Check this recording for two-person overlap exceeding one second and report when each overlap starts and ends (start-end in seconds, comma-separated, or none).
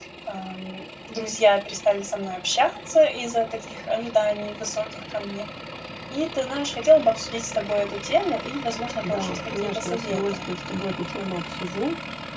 9.0-10.4